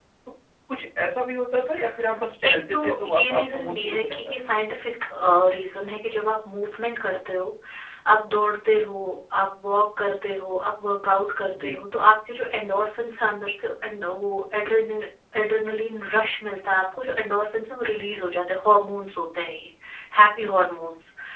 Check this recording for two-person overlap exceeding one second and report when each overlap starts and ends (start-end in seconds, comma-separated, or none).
2.4-4.5